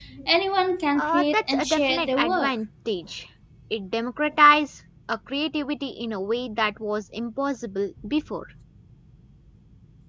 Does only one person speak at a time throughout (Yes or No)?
No